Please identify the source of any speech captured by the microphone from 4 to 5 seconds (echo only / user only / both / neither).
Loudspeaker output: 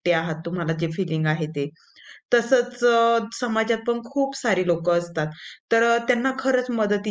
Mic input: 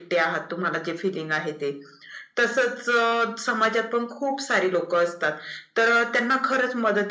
echo only